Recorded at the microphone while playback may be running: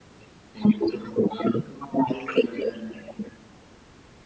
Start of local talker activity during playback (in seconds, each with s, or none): none